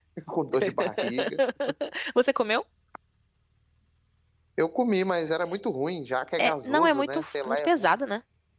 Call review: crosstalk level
present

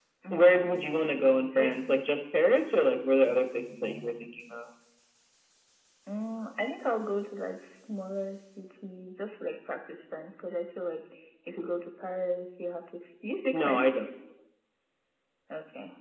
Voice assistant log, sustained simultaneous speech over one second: none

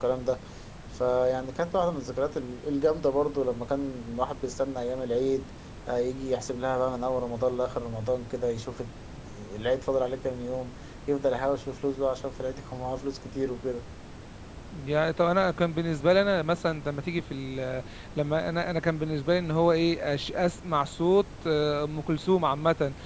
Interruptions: none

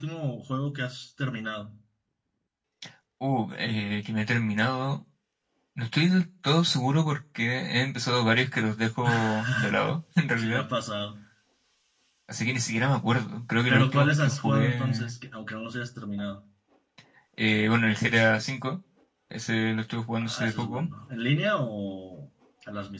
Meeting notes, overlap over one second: present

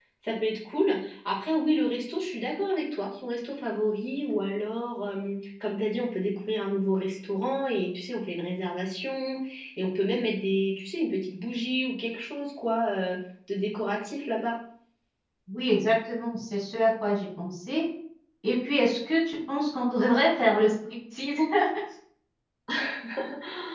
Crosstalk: none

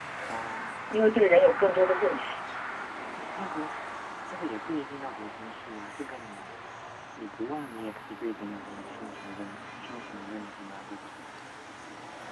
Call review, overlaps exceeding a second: none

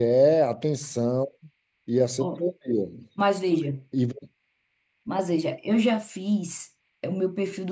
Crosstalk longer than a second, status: none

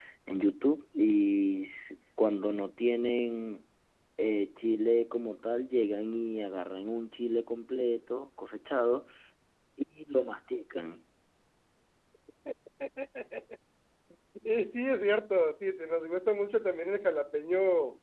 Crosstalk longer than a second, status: none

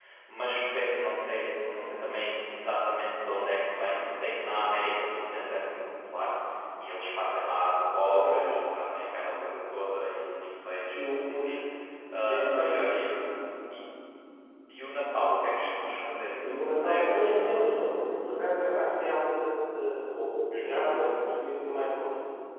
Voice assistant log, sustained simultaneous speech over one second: present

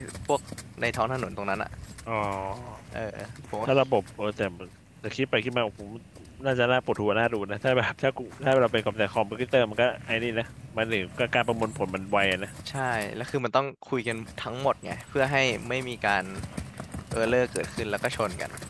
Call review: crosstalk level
none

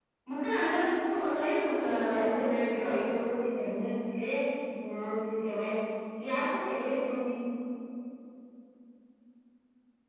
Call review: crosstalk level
present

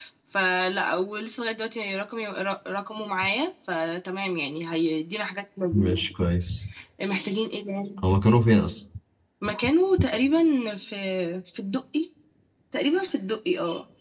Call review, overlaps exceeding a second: none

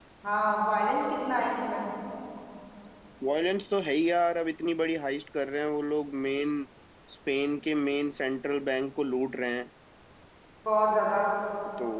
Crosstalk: none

